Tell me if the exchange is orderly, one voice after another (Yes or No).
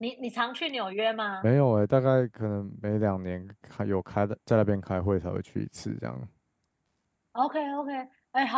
Yes